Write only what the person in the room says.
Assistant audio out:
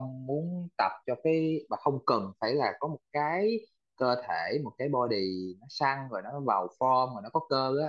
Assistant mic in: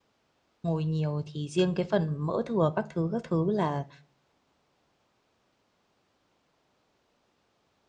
ngồi nhiều thì riêng cái phần mỡ thừa các thứ các thứ là

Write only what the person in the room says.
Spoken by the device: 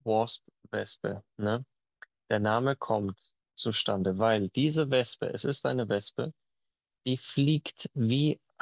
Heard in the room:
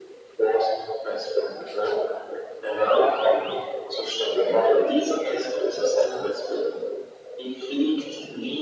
none

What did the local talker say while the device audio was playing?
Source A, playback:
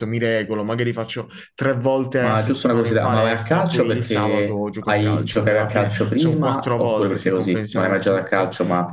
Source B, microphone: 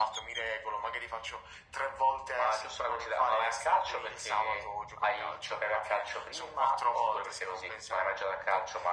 none

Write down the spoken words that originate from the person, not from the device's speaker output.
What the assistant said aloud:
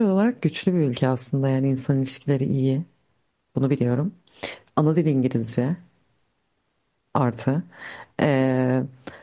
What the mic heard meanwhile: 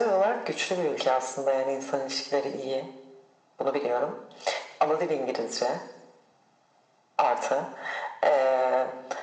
none

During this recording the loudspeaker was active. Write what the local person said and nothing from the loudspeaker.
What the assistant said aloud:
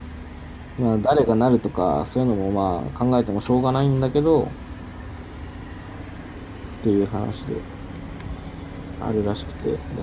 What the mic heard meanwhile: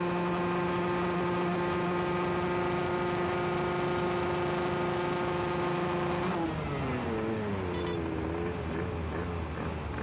none

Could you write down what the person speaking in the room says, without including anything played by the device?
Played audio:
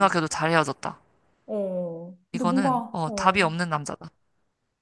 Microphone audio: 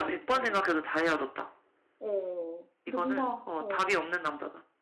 none

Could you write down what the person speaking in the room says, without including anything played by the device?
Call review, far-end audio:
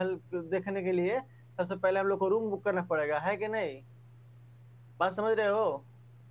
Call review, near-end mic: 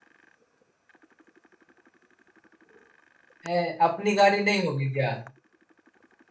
ए, अपनी गाड़ी नहीं होगी क्या

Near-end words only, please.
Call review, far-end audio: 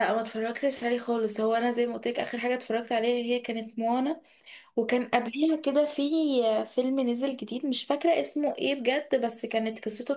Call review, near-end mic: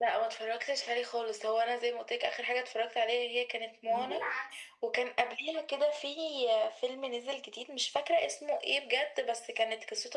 وفي العكس

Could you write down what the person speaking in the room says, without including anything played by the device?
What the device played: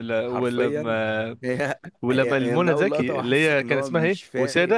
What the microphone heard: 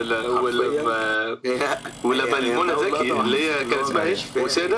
مم. أيوة.

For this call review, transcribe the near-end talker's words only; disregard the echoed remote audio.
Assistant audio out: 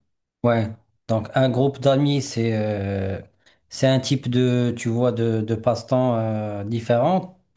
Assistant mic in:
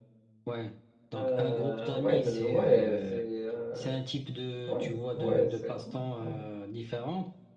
Euh, ouais, de, ouais, c'est. euh, ouais, ouais, c'est. ouais, ouais.

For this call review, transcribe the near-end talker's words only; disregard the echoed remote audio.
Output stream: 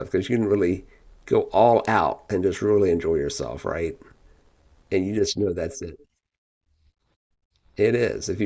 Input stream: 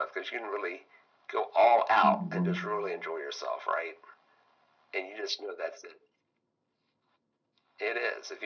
Mhm.

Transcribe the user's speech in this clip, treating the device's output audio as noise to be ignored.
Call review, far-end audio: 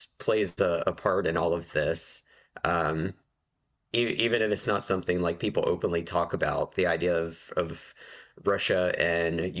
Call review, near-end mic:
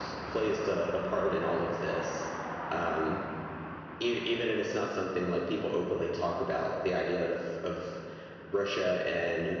none

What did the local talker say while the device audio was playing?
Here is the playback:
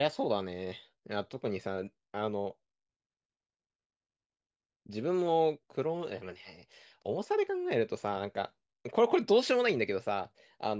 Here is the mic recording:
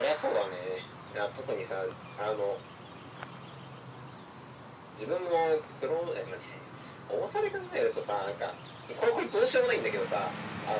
none

